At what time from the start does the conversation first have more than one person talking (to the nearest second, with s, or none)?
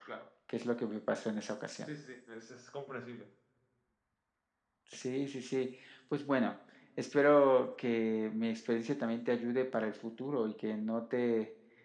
none